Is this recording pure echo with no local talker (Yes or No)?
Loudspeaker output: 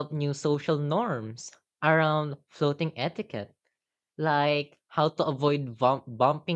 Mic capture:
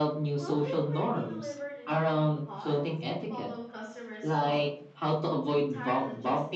No